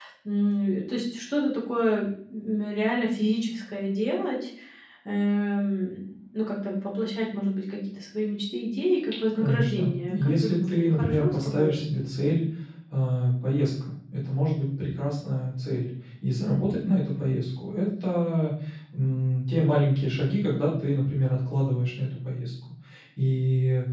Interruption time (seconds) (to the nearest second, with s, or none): 9 s